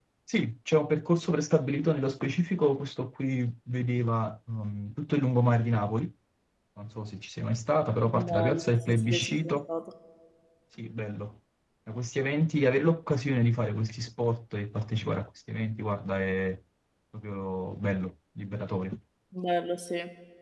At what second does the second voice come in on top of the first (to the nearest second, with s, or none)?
8 s